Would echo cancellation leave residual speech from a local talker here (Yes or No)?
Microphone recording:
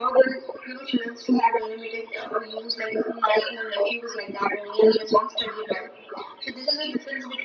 No